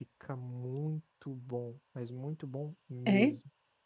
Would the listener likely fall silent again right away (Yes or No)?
Yes